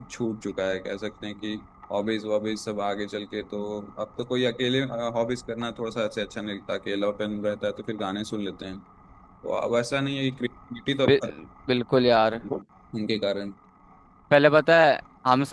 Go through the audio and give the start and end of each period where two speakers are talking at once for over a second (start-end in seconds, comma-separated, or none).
none